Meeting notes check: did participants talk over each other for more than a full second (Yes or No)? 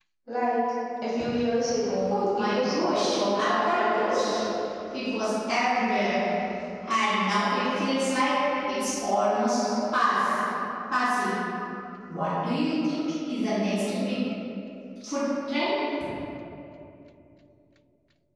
Yes